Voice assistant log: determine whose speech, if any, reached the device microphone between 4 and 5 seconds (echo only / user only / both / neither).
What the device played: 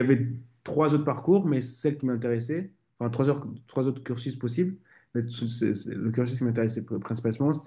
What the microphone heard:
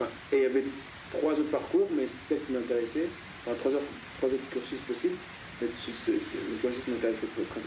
echo only